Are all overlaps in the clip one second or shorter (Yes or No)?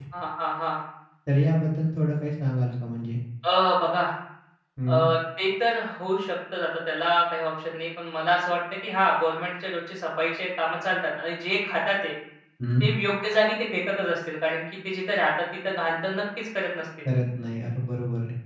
Yes